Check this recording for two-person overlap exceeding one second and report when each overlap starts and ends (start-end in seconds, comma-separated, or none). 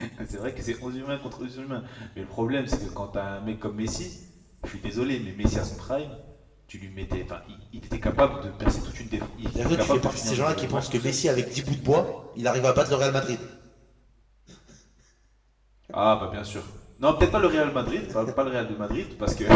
9.6-11.2